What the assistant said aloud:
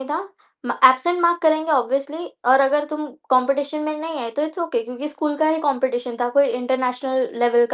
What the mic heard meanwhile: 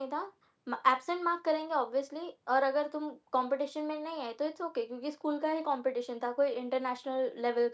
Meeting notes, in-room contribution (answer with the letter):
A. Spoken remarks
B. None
B